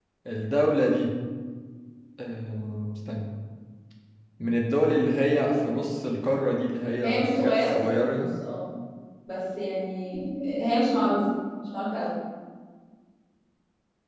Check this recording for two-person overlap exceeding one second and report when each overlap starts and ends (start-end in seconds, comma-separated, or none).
7.0-8.2